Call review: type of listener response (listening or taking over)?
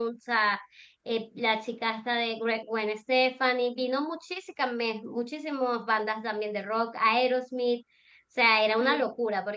listening